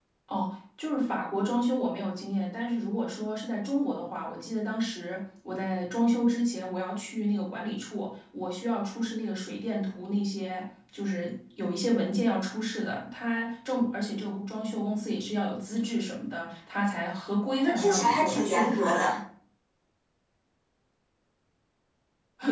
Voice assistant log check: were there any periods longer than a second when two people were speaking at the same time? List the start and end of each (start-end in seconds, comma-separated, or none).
17.5-19.2